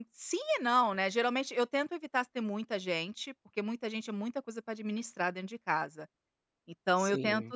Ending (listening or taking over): listening